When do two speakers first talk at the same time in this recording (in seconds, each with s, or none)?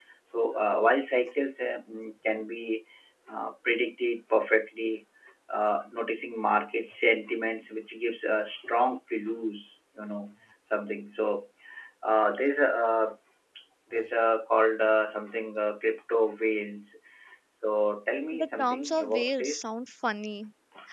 18.3 s